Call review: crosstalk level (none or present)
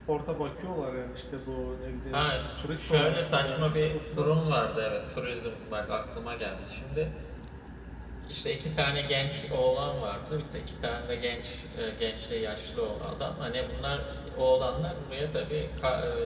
present